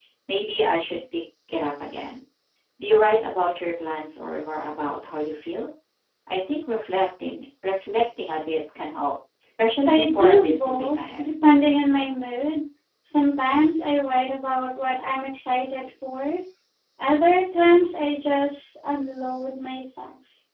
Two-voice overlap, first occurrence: 9.8 s

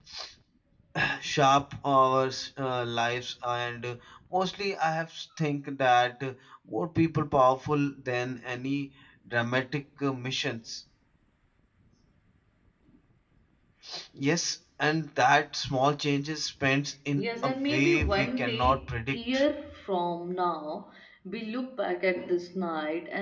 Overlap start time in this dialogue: 17.2 s

